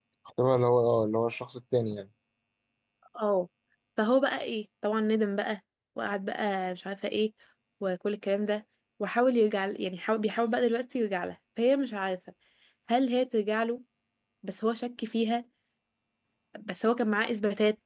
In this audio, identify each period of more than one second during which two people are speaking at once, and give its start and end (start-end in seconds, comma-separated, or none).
none